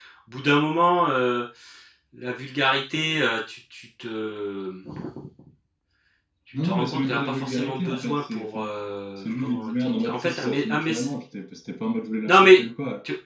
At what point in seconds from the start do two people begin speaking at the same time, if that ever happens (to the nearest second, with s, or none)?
7 s